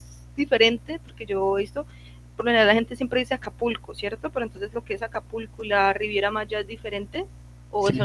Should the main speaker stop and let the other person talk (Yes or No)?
Yes